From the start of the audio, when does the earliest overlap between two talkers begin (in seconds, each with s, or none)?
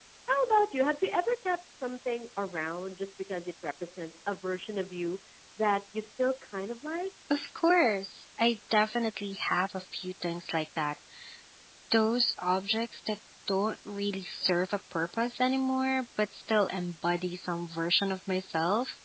none